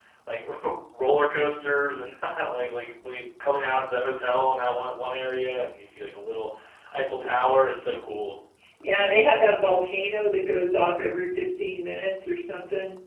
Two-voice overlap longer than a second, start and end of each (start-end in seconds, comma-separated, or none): none